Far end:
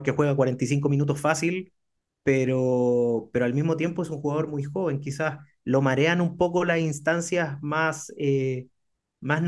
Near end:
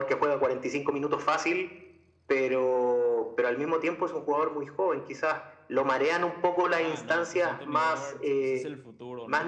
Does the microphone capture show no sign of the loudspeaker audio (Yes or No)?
No